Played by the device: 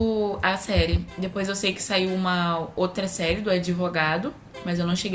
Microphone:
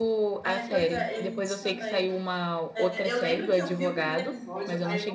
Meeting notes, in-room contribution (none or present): present